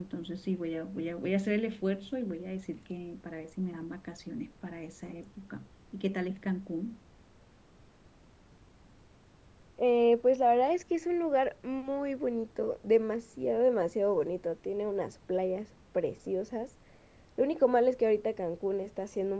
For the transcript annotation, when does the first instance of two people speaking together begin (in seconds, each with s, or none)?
none